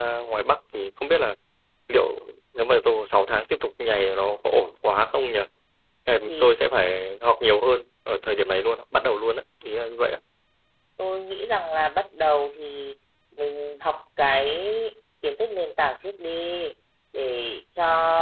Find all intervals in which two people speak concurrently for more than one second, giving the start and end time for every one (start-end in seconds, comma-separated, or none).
none